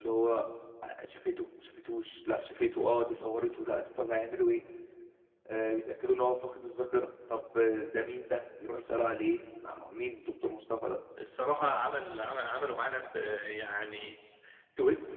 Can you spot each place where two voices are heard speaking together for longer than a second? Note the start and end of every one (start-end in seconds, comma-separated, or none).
none